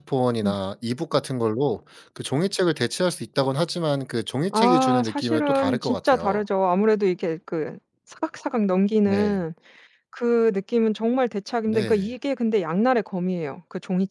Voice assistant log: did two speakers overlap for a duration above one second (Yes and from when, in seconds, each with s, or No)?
Yes, from 4.5 s